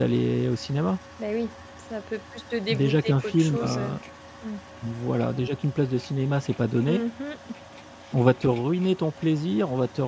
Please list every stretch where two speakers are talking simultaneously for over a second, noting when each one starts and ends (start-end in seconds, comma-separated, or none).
2.7-4.0